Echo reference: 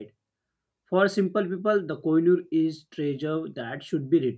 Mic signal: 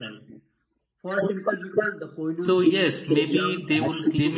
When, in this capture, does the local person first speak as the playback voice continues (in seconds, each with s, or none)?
2.4 s